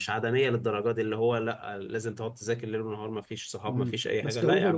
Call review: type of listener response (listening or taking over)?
taking over